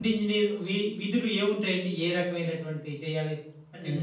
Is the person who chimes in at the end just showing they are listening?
No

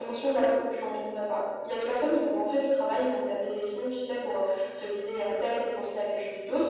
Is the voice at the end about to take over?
No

